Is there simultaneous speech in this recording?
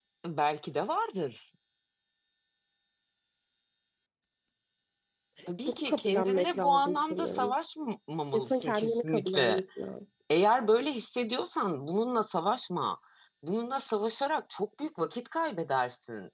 Yes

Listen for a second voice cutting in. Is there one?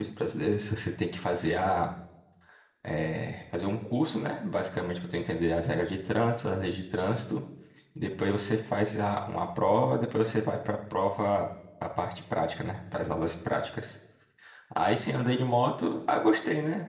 No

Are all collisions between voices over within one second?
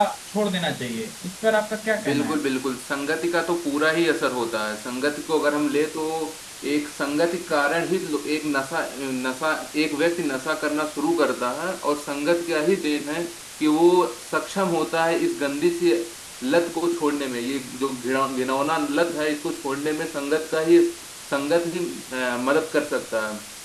Yes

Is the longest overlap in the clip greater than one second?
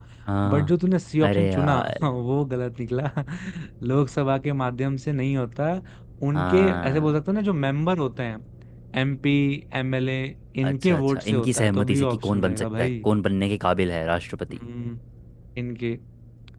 Yes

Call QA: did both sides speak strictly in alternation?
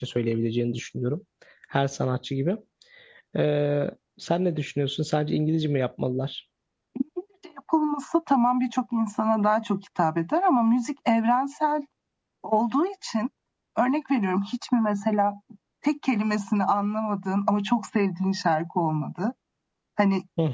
Yes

